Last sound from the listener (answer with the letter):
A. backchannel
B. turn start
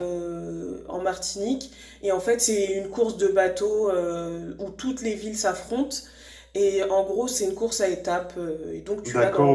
B